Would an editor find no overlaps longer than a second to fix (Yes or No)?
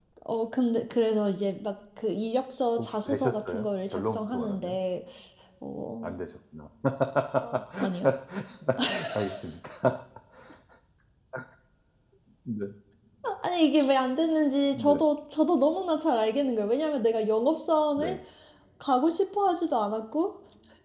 No